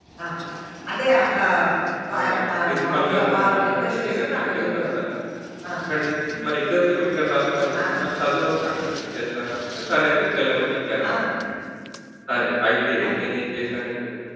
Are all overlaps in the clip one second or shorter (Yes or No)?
No